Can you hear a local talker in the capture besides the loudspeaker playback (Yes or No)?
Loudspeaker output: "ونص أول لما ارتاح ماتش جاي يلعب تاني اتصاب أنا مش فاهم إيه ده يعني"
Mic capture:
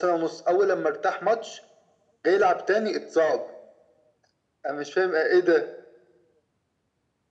No